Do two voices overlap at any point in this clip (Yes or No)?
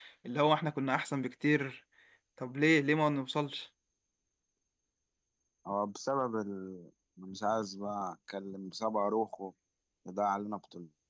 No